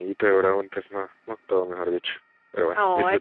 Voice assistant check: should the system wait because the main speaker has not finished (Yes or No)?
No